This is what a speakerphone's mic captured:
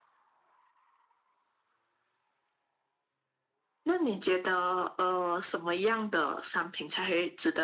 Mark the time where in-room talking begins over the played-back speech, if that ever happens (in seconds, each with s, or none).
none